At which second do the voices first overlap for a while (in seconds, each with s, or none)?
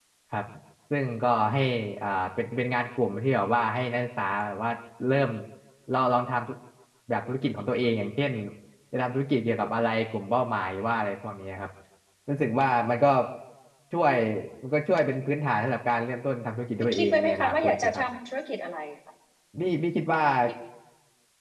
16.8 s